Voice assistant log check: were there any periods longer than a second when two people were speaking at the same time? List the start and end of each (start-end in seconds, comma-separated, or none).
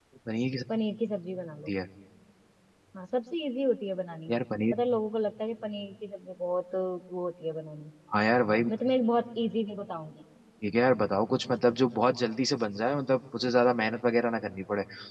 none